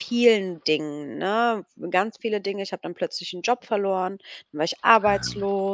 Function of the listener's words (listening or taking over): listening